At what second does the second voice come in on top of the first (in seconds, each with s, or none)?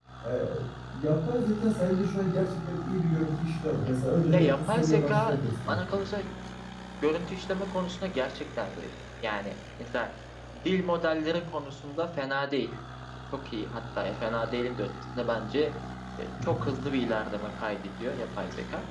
4.3 s